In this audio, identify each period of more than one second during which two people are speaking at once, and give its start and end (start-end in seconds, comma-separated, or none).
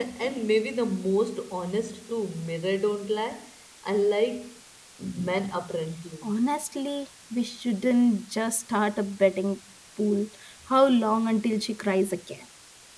none